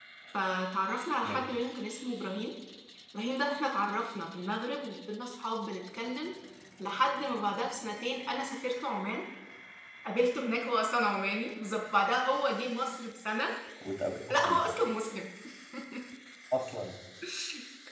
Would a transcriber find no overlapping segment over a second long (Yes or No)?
Yes